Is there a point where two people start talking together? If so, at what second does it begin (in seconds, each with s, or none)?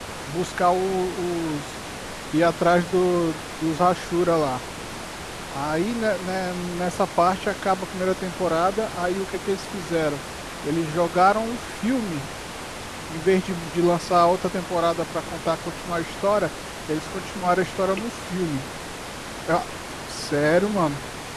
none